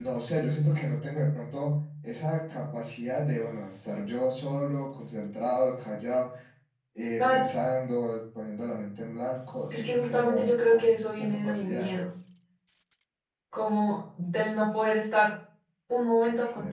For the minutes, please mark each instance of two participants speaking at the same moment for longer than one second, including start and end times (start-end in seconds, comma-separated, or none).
9.7-11.9